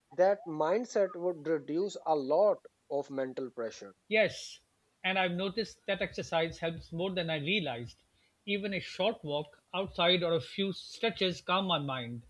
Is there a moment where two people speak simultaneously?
No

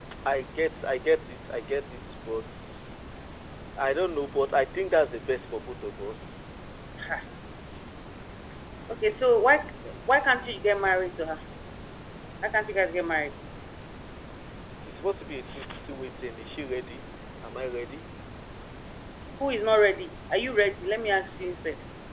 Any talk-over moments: No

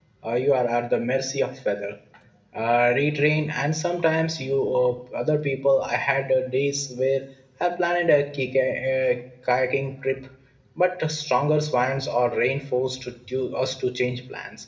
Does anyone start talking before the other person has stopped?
No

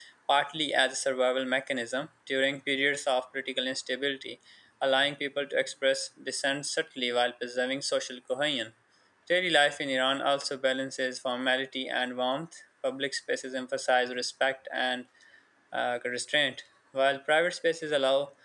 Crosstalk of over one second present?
No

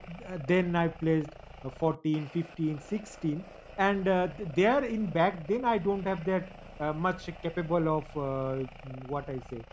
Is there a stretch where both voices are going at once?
No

